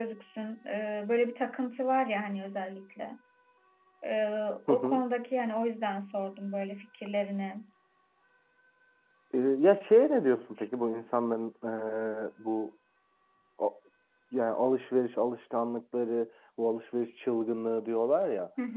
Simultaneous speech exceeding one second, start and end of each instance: none

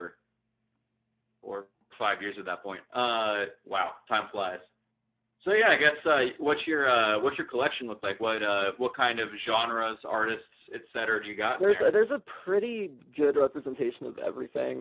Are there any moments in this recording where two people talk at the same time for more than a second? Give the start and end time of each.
none

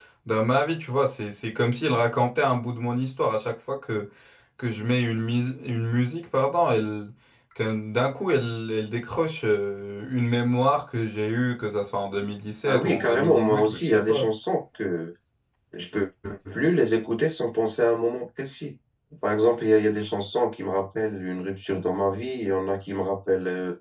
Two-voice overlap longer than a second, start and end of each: 12.6-14.3

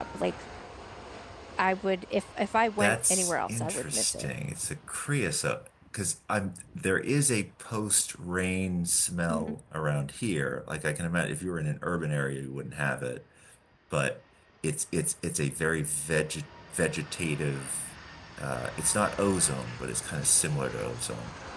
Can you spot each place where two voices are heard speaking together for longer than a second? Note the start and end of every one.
2.8-4.2

